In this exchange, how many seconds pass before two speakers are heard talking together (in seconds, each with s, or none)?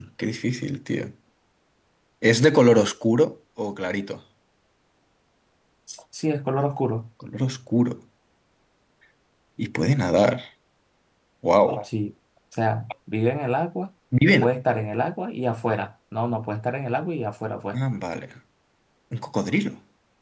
none